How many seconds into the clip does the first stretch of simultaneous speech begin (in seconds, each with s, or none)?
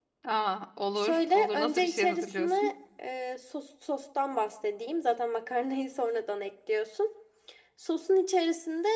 1.0 s